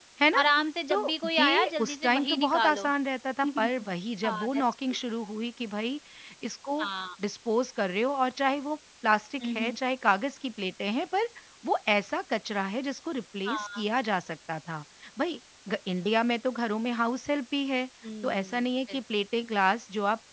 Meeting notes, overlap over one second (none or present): present